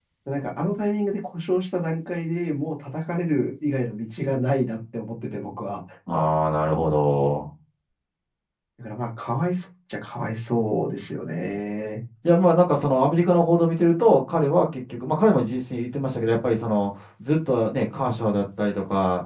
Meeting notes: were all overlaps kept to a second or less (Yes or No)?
Yes